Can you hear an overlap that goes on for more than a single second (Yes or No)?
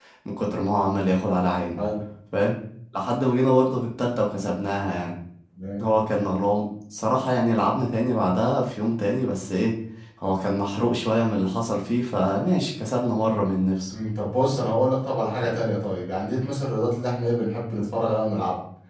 No